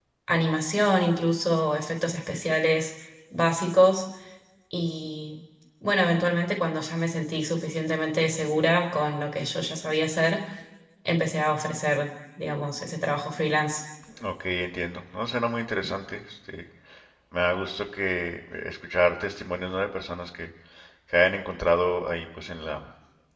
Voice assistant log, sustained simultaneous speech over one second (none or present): none